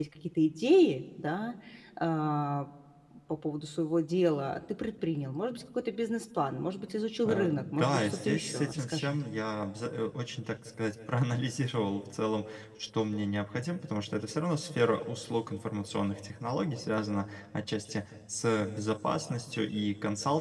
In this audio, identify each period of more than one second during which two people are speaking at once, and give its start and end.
7.2-9.2

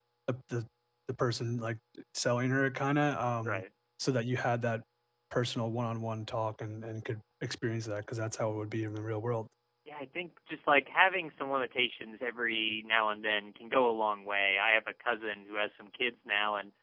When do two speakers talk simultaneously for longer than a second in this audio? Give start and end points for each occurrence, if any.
none

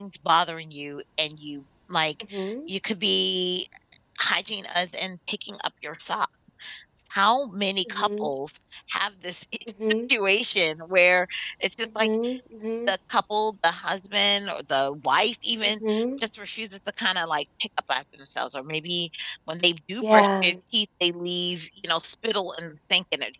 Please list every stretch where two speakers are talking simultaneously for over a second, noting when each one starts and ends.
none

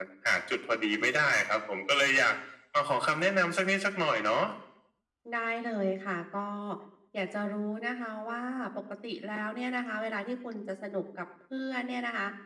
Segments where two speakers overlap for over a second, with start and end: none

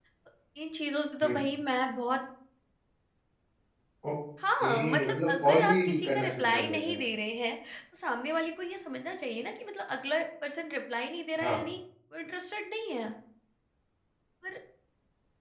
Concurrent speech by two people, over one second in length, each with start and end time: 4.6-7.0

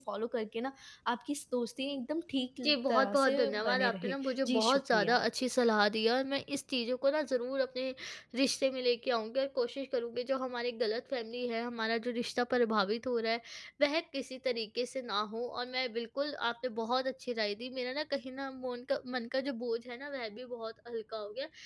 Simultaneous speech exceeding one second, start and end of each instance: 2.6-5.2

